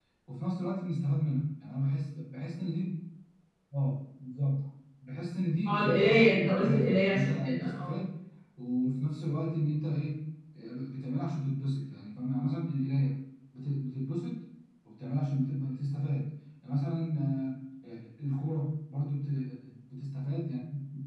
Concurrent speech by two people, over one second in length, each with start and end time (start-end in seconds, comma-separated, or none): 5.7-7.9